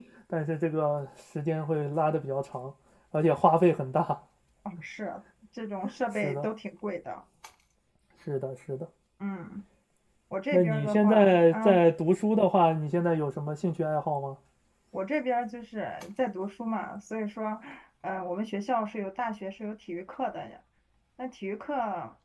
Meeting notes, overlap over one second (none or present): present